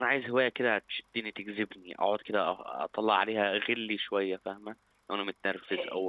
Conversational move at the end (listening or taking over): taking over